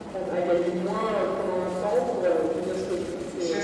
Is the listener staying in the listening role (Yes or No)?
No